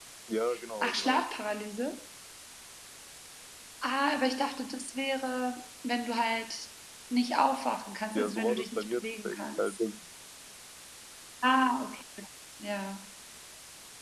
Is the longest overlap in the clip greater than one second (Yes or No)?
Yes